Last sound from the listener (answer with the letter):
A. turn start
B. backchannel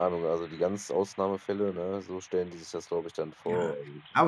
A